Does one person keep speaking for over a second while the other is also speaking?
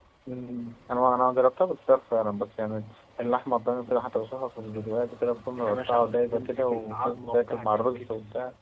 Yes, from 5.6 s

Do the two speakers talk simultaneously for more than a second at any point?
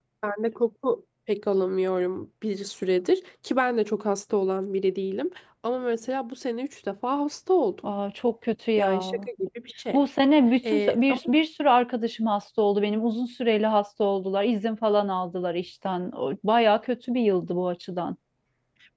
No

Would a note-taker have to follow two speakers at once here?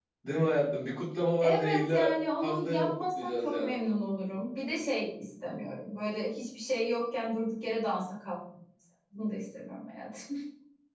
Yes, from 1.4 s

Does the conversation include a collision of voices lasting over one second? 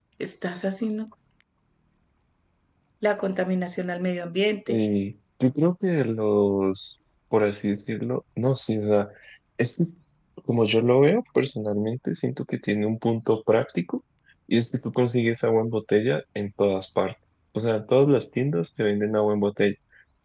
No

